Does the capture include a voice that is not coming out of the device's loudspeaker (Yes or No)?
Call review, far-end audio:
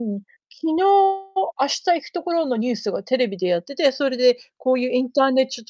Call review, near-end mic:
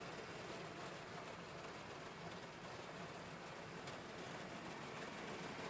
No